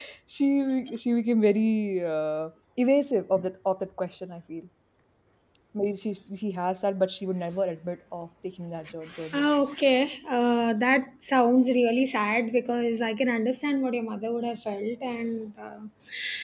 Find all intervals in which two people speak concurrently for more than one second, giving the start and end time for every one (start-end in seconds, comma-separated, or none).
none